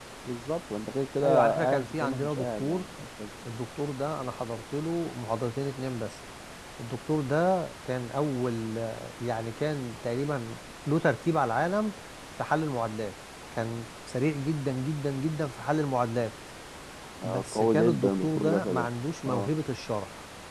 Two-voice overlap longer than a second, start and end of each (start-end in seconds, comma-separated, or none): 1.2-2.8, 17.2-18.9